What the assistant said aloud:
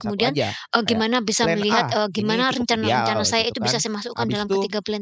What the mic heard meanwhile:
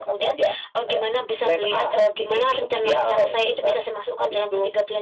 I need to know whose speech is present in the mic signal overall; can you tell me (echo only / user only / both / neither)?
echo only